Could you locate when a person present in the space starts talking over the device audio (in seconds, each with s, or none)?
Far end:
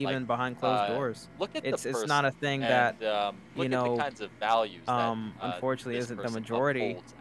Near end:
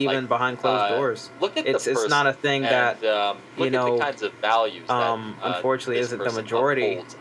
none